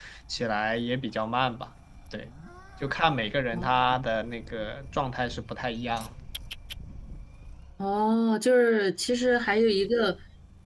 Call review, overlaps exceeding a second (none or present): none